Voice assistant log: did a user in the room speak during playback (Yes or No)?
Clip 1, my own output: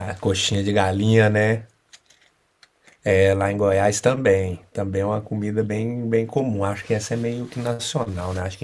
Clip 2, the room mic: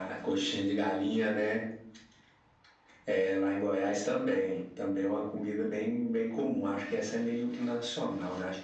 No